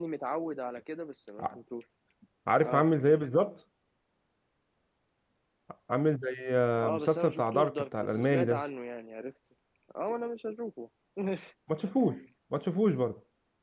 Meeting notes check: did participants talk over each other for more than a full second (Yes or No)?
Yes